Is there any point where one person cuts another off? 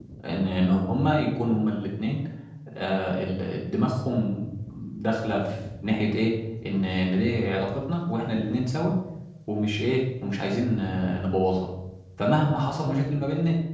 No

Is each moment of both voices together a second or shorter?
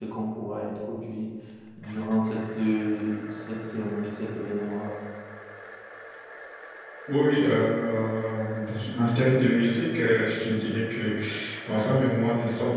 Yes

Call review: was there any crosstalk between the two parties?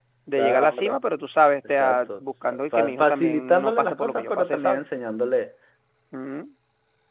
Yes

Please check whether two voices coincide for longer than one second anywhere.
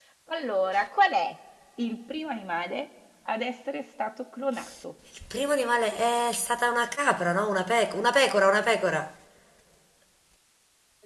No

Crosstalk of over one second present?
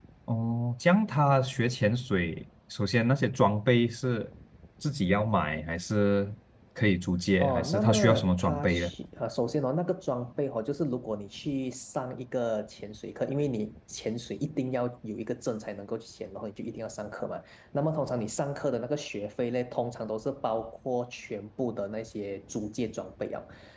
Yes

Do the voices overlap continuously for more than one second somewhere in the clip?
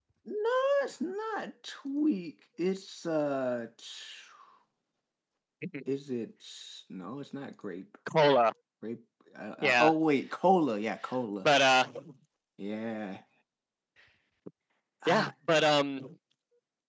No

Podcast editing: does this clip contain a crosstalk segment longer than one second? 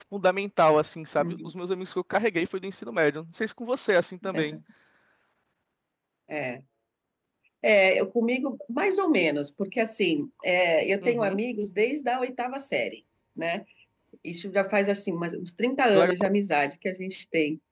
No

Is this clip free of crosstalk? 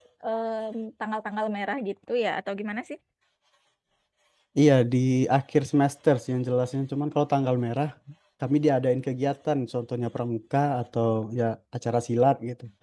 Yes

